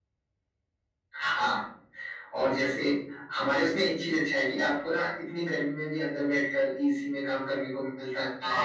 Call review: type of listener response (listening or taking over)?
taking over